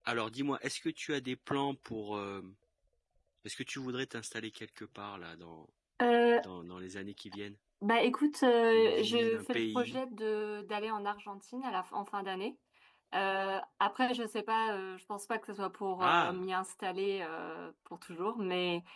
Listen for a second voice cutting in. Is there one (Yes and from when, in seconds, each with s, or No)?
Yes, from 8.7 s